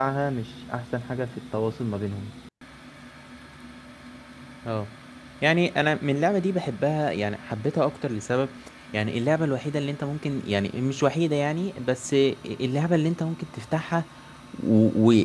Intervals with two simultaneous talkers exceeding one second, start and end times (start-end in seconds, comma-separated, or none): none